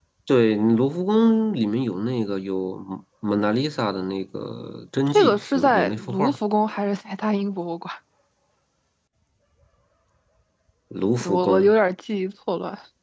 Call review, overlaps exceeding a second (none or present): present